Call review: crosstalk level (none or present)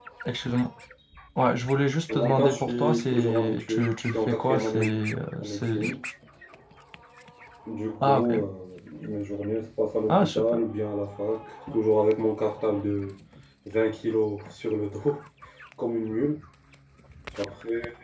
present